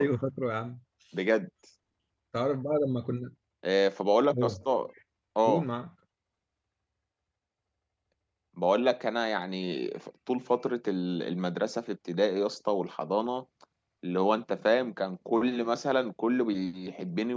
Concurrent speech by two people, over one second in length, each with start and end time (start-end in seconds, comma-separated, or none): none